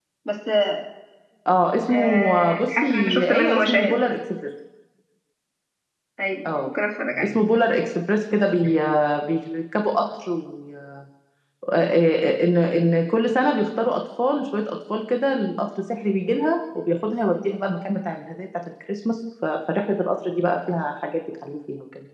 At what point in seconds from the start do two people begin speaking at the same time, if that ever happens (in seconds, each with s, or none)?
1.9 s